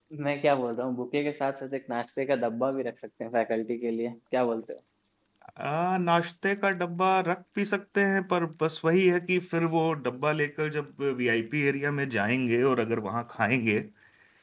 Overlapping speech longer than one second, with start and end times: none

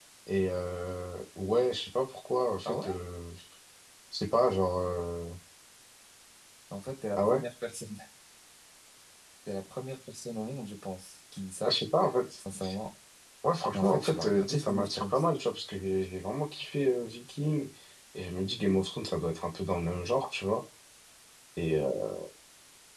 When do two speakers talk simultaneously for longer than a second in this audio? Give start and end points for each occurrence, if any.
13.7-15.1

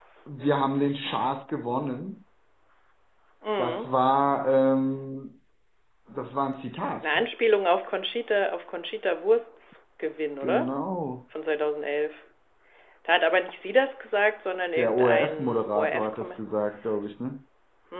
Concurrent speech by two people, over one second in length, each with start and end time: 14.7-16.4

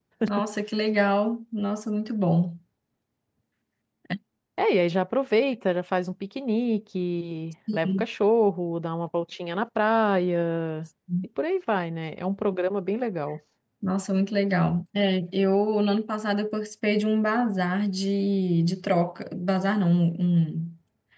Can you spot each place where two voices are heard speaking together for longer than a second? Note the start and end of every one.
none

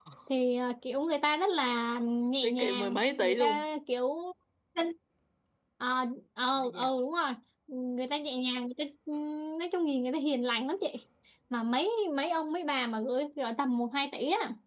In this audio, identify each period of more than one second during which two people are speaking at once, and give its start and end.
2.4-3.6

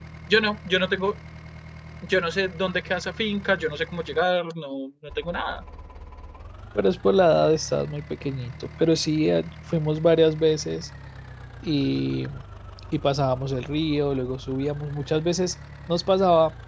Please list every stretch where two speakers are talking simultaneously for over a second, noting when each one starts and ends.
none

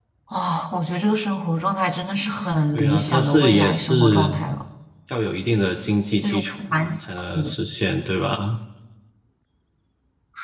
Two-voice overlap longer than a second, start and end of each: 2.7-4.3

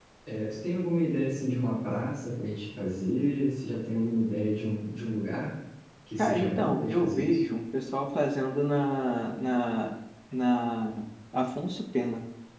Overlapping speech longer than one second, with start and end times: 6.2-7.4

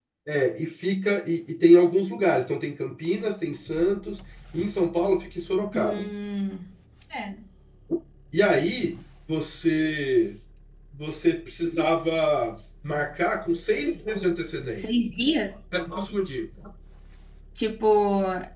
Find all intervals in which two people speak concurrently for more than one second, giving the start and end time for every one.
none

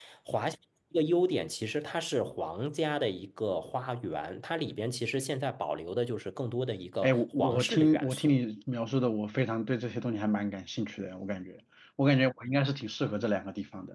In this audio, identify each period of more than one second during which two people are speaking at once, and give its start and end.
7.0-8.4

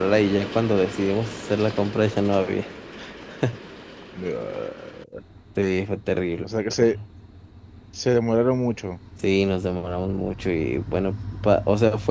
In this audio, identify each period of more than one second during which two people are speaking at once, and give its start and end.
none

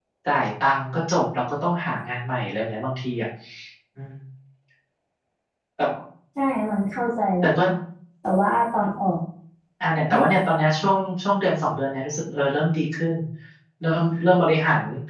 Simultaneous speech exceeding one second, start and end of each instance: none

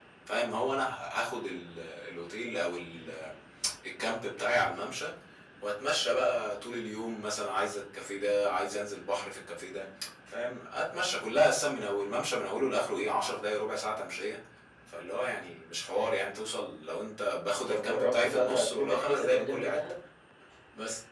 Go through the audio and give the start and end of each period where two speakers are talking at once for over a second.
17.7-19.8

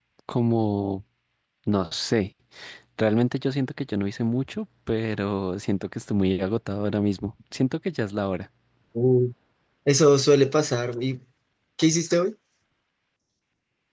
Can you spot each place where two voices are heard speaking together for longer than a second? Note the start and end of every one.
none

